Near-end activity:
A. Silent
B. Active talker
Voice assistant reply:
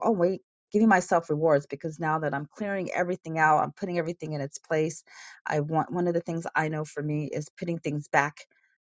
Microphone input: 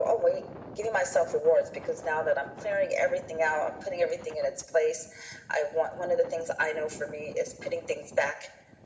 A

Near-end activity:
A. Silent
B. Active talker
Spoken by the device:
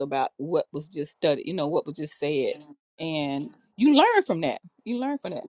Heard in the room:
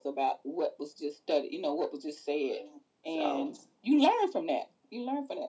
B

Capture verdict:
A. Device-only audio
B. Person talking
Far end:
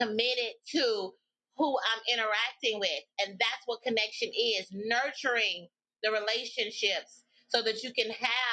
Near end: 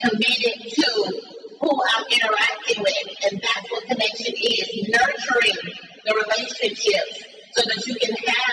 A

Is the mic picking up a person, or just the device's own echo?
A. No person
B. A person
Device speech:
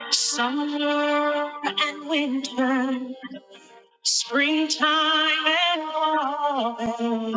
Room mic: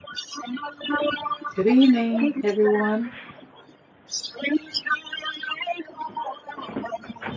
B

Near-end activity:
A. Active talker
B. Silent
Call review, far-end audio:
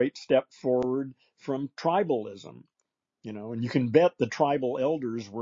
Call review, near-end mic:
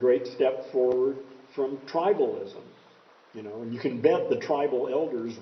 B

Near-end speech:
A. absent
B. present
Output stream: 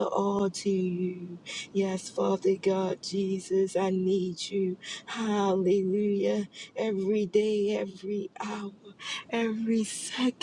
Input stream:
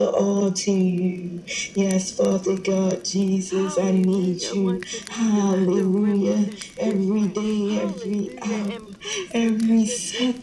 B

